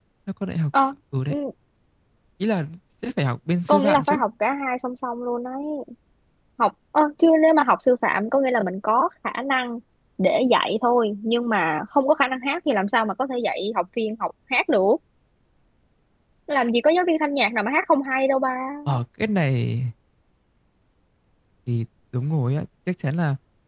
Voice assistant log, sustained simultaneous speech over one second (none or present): none